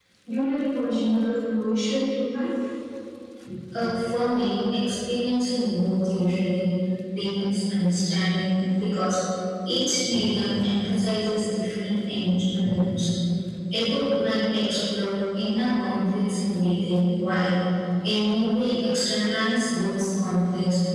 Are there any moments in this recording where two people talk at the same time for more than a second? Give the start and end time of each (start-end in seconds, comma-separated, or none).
none